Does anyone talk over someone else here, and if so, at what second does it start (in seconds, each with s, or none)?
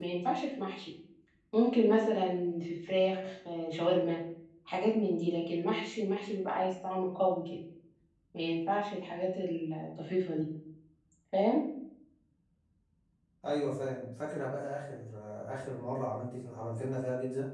none